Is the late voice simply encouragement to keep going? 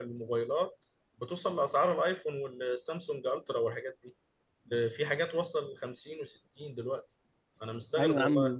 No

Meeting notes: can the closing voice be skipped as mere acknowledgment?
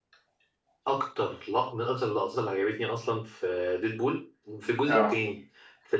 Yes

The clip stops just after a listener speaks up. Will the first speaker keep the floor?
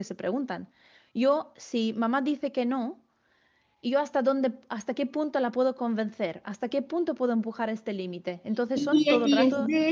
No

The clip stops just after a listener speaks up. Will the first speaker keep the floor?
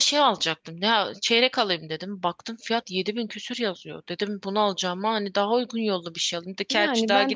No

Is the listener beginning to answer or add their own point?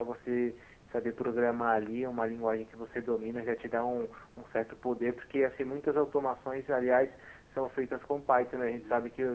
No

